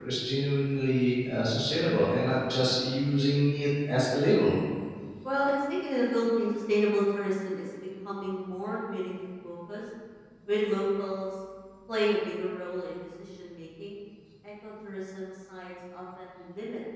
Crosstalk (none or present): none